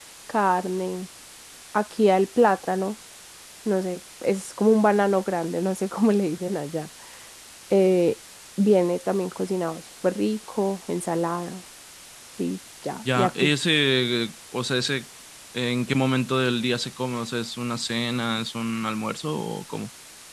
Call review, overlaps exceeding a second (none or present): none